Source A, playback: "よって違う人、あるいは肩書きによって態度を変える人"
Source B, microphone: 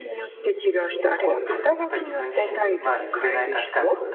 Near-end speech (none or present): present